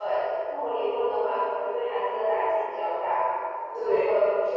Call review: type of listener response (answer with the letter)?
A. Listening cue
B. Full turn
A